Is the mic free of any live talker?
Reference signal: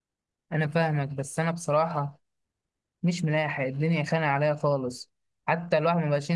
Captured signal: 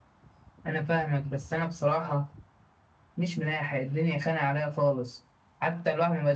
Yes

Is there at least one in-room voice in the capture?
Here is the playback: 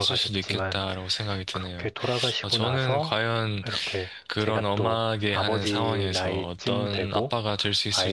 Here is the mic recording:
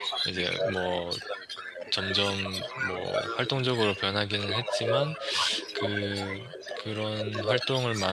Yes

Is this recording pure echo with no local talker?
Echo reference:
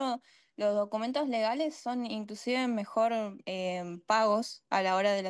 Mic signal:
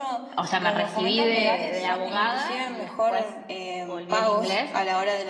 No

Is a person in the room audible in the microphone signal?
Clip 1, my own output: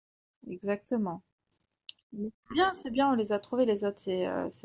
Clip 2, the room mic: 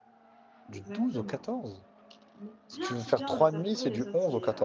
Yes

